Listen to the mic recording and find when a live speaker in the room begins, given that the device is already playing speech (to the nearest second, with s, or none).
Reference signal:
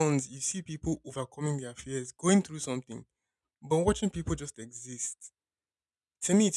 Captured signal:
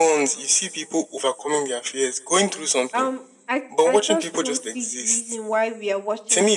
3 s